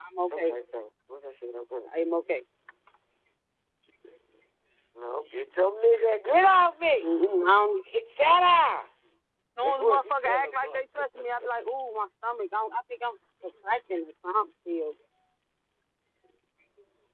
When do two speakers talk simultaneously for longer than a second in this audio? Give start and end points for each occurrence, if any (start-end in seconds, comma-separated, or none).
9.6-11.0